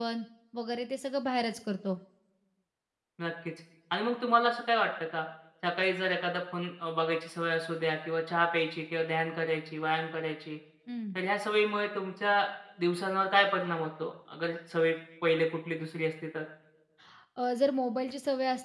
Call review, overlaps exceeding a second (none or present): none